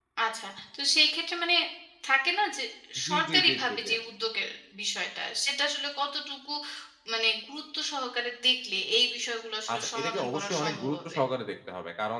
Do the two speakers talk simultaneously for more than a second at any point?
Yes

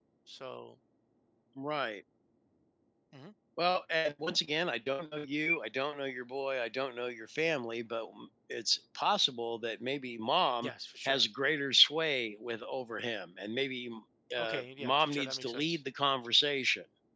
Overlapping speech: Yes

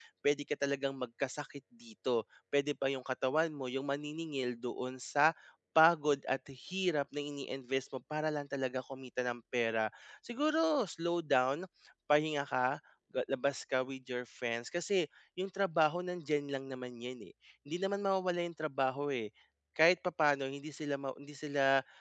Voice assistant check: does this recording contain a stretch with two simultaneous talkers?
No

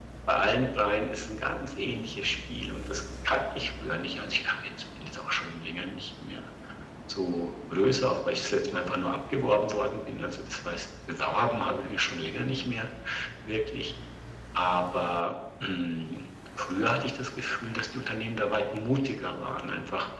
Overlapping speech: No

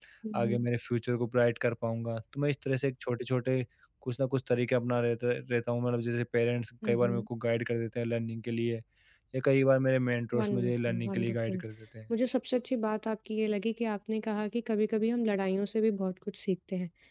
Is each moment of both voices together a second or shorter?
No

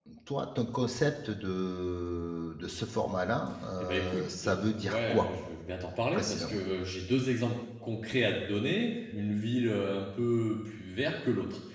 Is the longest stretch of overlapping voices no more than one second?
No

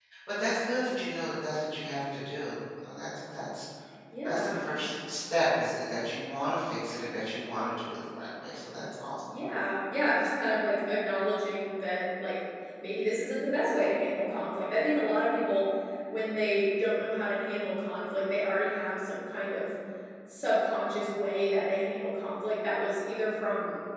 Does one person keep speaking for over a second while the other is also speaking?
No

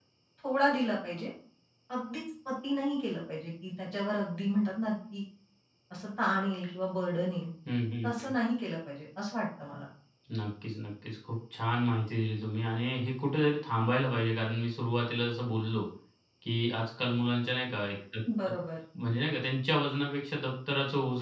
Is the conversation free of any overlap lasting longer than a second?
Yes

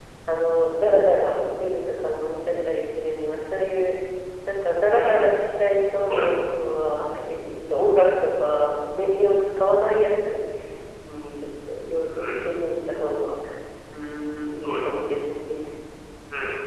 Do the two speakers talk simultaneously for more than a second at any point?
No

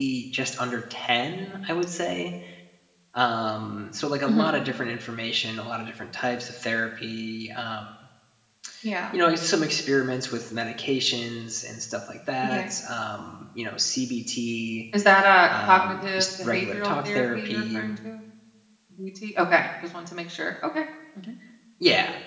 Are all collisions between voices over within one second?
No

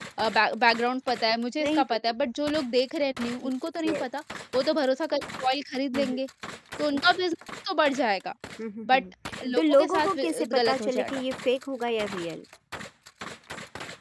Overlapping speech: Yes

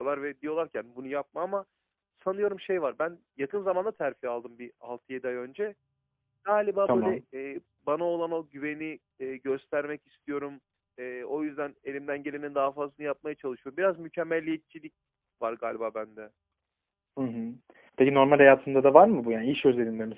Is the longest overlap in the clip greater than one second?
No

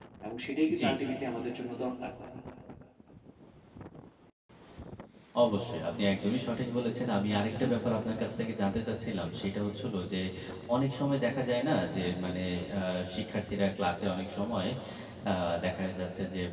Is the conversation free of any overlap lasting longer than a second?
Yes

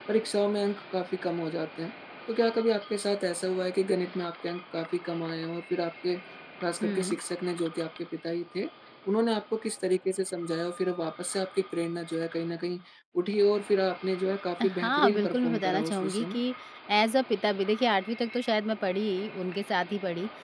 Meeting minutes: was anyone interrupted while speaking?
Yes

